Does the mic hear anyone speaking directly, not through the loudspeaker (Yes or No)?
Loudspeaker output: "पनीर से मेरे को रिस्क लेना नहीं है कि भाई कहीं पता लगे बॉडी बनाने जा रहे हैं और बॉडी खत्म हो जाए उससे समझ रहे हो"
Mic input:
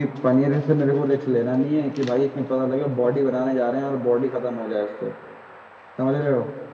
No